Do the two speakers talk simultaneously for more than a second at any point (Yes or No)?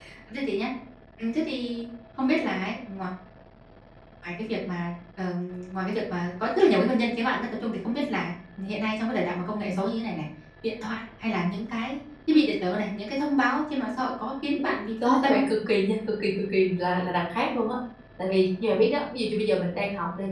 No